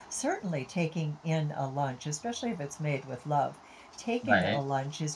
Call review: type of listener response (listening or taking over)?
listening